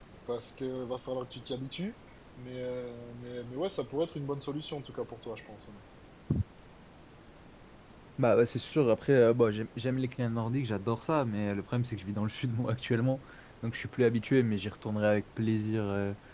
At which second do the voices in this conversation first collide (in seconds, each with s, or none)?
none